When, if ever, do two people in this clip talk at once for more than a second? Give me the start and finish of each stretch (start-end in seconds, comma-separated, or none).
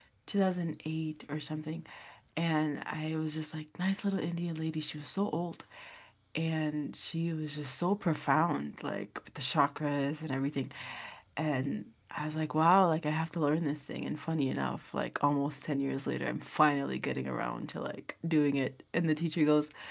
none